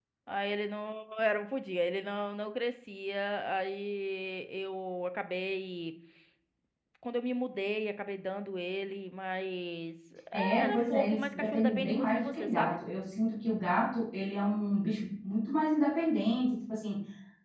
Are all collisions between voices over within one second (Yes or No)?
No